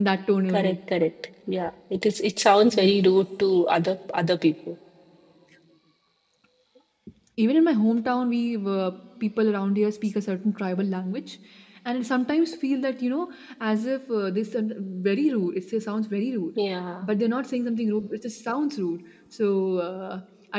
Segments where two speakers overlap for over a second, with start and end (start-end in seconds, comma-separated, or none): none